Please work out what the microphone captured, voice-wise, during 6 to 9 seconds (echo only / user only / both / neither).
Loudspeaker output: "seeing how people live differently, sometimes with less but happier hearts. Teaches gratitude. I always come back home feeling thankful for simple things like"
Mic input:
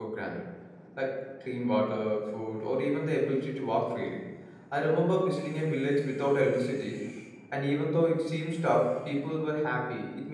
user only